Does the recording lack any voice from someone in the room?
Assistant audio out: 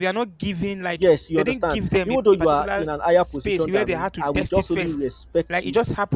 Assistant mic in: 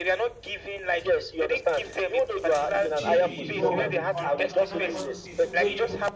No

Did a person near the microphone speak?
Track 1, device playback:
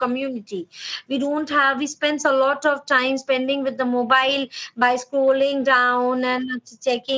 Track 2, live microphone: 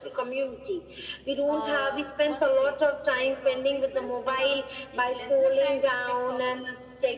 Yes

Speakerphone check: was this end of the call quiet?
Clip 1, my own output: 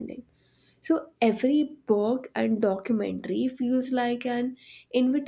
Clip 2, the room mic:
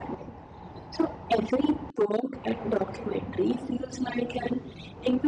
Yes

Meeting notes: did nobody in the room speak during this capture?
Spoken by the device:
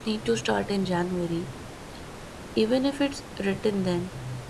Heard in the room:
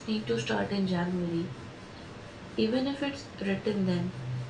Yes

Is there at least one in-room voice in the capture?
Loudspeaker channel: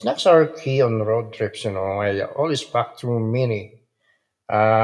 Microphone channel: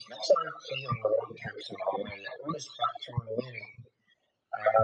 No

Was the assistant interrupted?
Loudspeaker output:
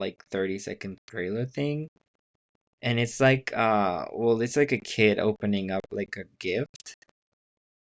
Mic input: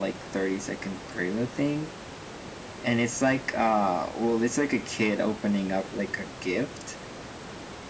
No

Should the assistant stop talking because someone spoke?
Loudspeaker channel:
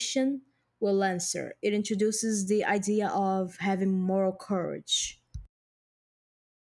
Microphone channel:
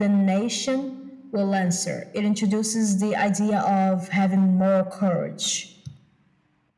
No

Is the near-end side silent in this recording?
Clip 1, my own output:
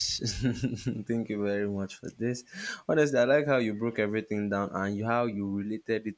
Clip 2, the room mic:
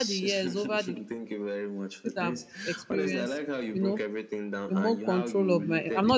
No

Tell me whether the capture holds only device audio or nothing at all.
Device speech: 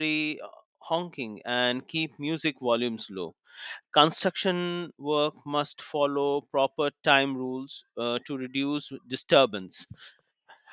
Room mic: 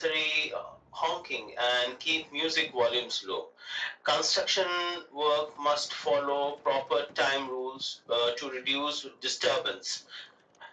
Yes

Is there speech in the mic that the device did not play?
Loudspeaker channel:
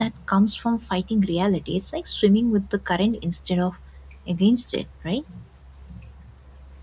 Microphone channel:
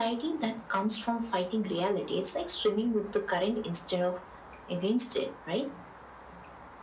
No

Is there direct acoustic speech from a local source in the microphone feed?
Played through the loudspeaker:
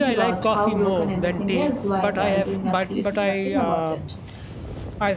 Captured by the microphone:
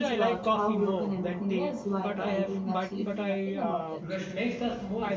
Yes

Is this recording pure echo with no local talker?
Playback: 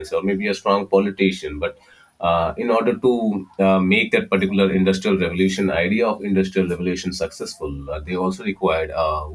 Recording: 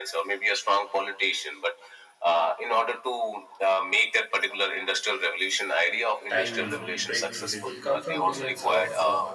No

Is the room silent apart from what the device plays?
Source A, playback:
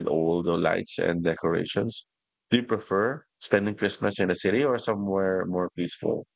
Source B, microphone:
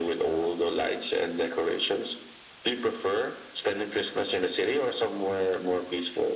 Yes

